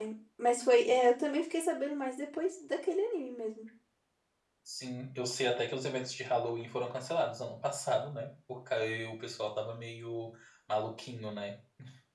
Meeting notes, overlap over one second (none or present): none